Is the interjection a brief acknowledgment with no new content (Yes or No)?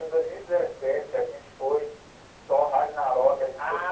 No